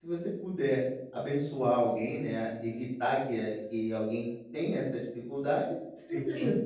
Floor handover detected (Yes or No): No